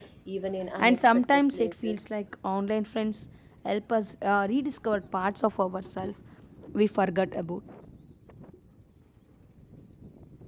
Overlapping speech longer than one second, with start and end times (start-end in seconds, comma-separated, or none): 0.8-2.1